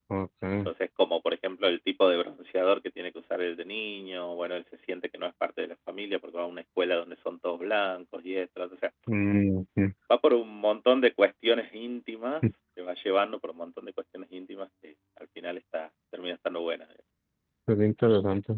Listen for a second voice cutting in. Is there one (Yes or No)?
No